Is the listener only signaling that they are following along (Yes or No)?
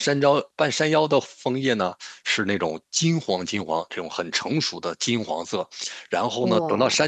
Yes